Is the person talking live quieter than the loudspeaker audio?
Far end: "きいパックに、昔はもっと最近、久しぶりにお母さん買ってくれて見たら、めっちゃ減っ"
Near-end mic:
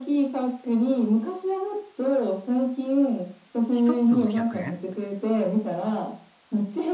Yes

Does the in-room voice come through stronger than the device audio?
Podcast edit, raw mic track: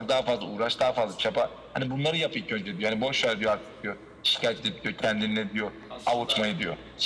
No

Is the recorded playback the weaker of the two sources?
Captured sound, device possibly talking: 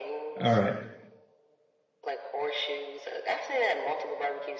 Yes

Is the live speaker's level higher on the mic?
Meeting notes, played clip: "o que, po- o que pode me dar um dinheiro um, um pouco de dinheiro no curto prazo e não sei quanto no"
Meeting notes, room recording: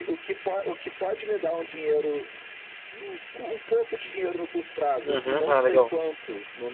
Yes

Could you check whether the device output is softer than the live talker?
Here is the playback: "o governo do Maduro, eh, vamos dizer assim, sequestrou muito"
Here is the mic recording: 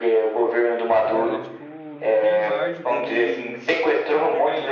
No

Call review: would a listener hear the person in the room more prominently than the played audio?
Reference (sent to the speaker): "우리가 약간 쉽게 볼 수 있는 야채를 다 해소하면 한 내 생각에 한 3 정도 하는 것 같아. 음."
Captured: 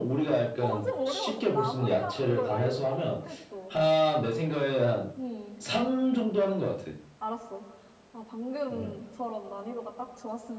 No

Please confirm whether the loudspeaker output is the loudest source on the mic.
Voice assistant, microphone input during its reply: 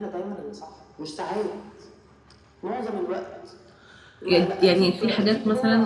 No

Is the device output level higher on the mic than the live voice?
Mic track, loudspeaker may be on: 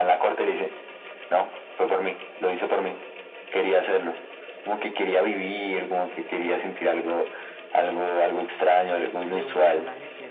Yes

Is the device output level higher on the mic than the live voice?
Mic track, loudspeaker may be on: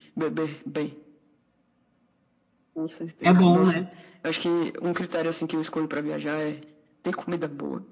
No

